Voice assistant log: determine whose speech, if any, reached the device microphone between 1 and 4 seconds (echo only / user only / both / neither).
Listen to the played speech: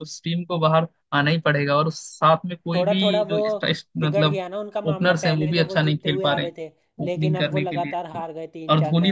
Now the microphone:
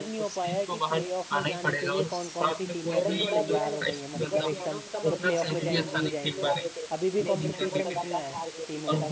both